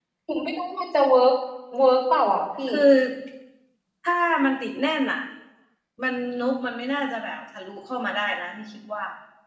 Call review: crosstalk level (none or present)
none